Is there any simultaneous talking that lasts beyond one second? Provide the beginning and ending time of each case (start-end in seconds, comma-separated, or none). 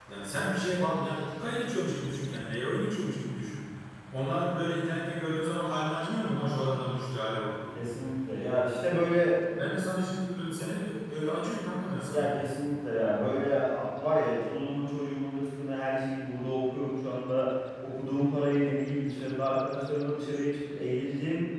none